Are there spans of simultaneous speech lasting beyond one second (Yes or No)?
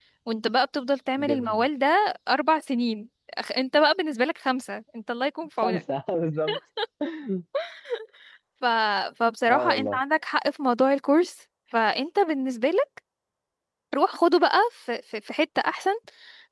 No